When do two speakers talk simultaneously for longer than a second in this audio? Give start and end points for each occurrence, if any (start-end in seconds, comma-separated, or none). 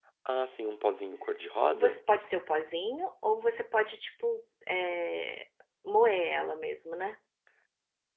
none